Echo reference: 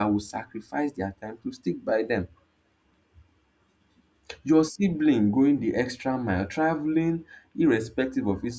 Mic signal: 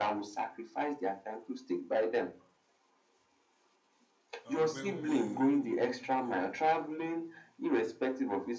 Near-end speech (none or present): present